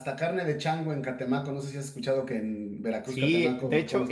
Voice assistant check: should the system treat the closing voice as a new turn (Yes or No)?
Yes